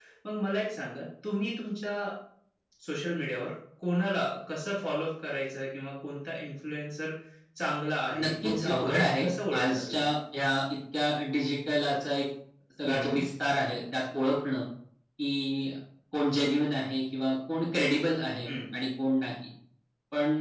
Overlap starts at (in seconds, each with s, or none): 8.2 s